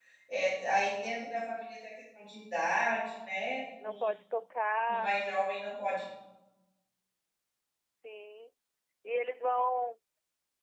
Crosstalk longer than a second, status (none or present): none